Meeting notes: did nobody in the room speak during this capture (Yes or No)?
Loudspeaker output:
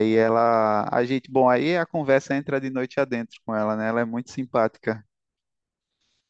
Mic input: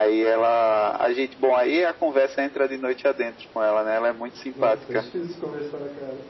No